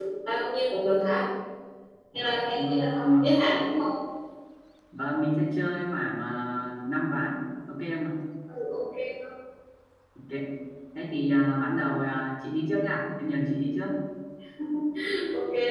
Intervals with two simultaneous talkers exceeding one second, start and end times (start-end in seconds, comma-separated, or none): 2.1-3.4